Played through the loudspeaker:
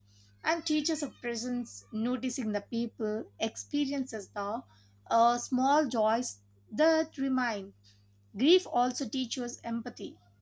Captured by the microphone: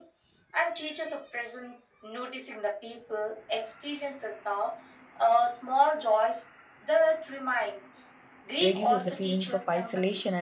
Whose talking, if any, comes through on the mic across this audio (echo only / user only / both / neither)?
both